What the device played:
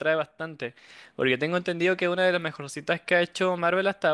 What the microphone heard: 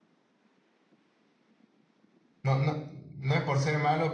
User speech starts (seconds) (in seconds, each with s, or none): 2.4 s